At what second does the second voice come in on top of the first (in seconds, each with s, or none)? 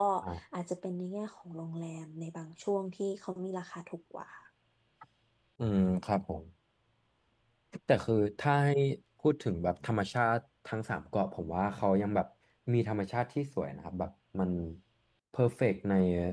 none